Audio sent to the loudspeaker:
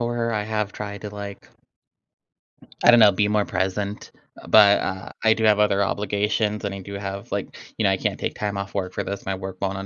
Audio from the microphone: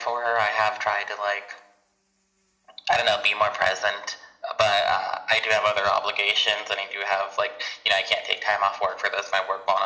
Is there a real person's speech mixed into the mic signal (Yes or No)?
No